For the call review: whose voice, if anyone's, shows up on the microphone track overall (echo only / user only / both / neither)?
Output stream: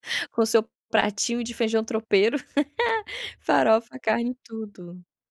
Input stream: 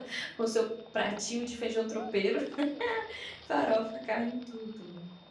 echo only